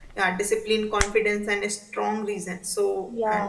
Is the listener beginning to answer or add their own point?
No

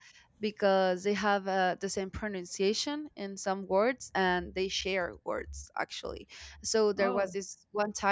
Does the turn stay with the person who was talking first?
Yes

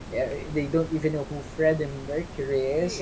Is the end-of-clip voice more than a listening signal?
No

